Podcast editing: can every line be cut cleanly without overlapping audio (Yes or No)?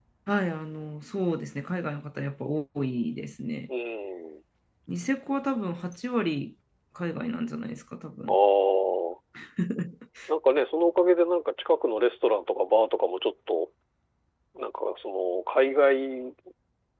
Yes